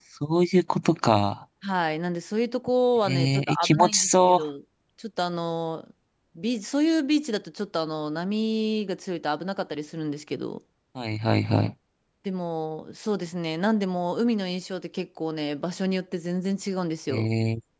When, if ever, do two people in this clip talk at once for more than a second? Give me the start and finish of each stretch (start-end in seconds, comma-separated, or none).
3.0-4.4